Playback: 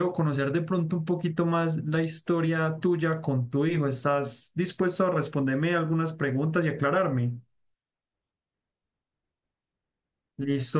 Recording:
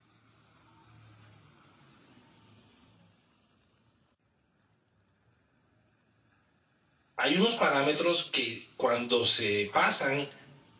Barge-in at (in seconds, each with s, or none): 7.2 s